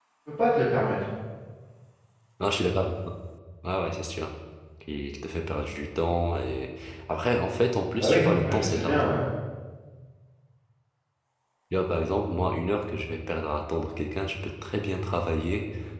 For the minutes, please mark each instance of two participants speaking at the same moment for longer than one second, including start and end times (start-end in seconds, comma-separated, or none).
8.0-9.2